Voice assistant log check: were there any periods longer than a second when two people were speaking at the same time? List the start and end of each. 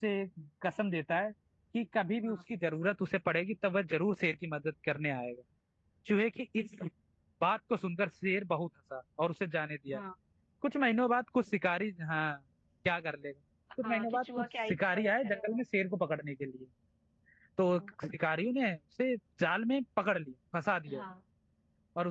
13.8-15.6

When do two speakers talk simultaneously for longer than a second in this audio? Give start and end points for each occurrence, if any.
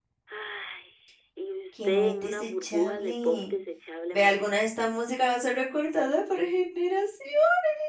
1.8-3.5

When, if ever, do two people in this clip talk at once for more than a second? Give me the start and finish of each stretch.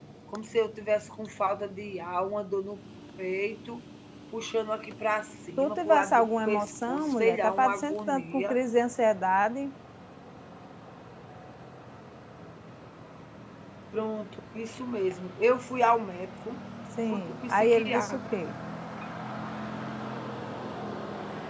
5.6-8.6, 17.1-18.3

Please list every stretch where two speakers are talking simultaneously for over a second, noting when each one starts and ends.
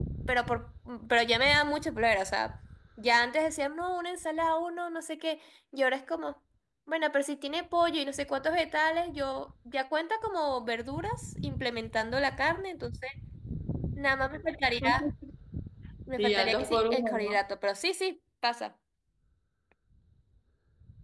16.2-17.4

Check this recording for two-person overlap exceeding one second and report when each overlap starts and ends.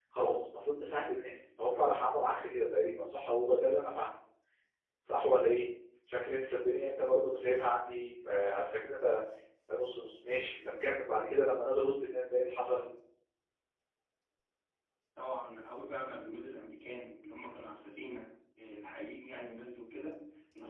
none

